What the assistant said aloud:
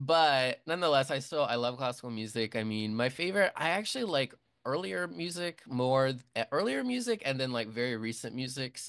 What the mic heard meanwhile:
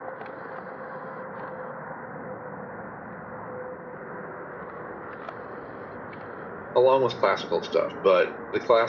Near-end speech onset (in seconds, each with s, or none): 6.7 s